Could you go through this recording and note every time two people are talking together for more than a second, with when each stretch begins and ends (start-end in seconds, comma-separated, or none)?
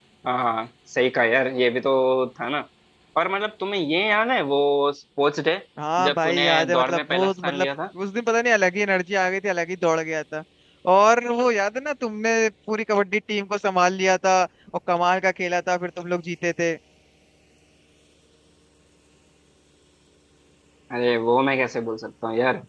6.0-7.7